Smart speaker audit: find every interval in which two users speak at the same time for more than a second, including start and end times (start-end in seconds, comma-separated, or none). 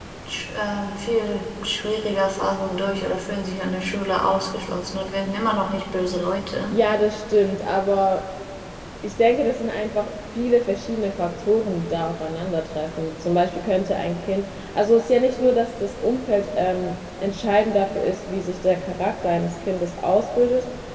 none